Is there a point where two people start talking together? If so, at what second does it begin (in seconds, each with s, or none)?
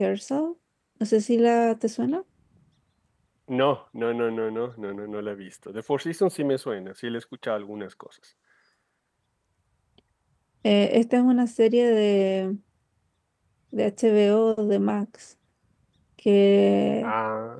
none